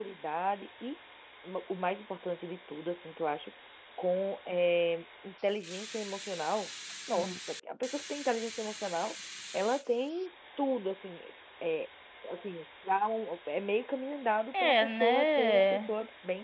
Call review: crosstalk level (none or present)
present